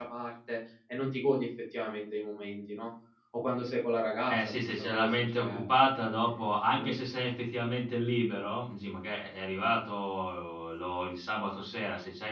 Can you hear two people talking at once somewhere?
Yes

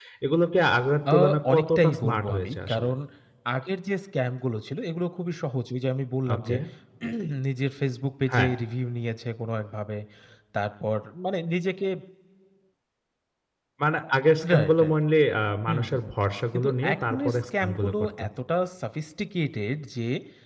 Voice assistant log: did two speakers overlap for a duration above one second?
Yes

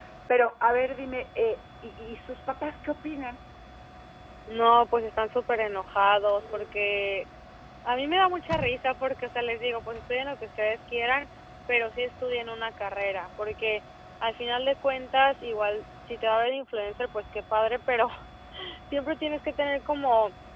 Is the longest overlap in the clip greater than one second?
No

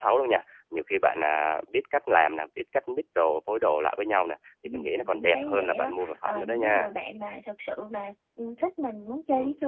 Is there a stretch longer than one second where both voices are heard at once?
Yes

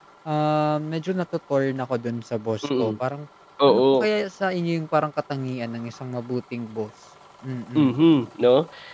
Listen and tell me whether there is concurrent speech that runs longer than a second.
No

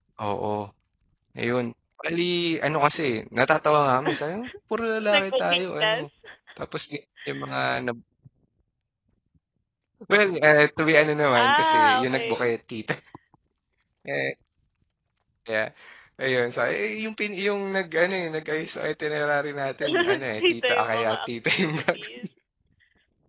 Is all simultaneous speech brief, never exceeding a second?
No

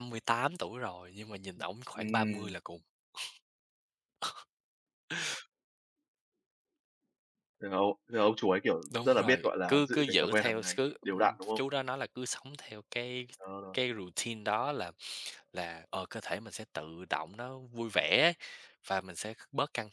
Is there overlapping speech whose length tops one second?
Yes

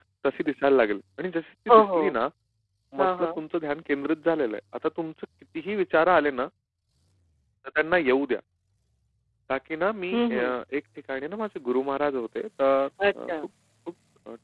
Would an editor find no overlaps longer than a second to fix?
Yes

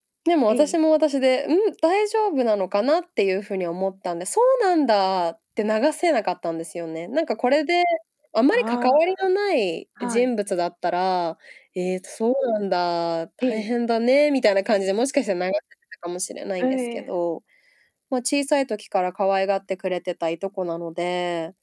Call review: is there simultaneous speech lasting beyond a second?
No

